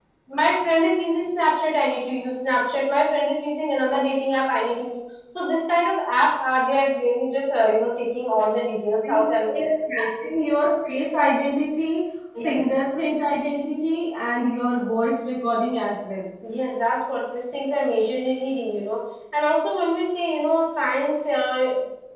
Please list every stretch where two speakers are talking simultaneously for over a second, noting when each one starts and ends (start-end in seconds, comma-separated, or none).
none